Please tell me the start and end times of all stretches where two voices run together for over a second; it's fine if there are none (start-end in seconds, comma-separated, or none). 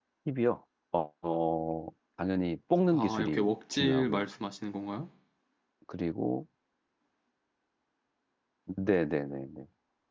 2.9-4.2